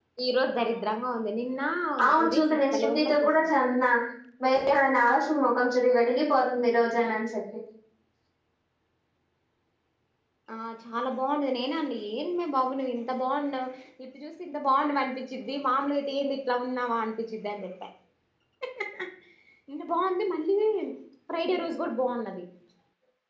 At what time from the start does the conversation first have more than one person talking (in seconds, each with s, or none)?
2.2 s